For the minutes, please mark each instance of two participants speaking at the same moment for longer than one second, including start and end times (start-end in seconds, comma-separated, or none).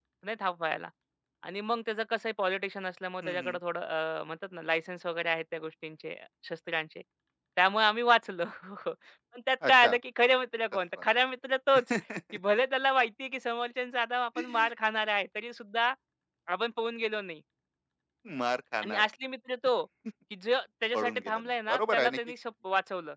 20.9-22.2